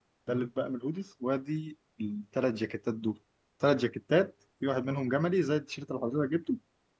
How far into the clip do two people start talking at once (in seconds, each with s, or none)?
none